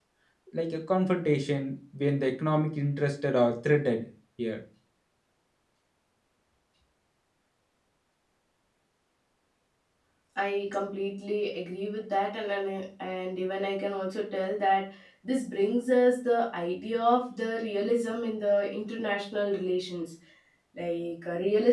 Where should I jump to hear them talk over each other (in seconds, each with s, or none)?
none